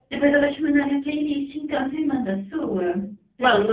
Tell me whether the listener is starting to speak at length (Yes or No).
Yes